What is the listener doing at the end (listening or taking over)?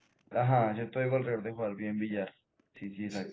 taking over